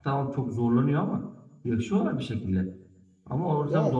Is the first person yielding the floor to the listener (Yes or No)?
No